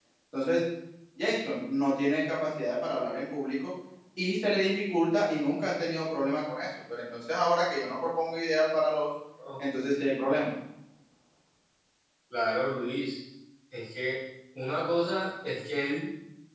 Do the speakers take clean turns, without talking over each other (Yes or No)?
Yes